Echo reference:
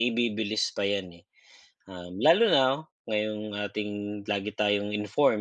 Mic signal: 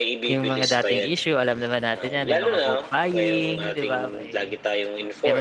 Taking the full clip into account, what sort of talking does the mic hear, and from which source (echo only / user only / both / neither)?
both